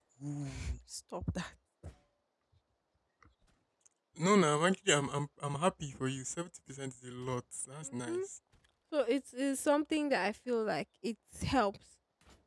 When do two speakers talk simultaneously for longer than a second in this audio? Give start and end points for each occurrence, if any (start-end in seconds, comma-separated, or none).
none